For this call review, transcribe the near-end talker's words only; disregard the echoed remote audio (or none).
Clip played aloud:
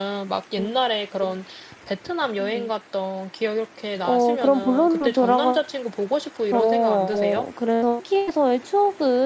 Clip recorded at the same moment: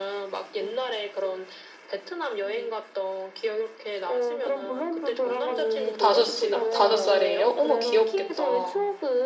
음 5 시가 5 살이에요? 어머 귀엽겠다.